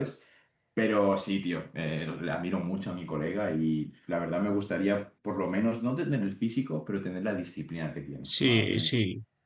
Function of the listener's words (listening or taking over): taking over